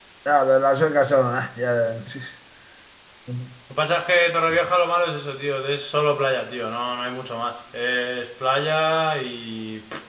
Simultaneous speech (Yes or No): No